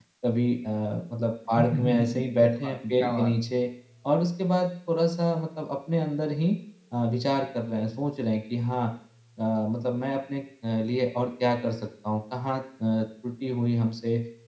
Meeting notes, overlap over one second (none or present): present